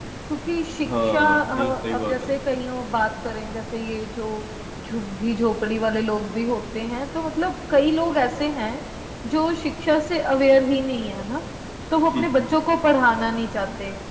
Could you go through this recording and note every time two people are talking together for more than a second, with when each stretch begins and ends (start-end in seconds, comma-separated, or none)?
1.0-2.3